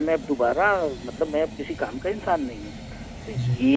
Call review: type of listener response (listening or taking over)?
listening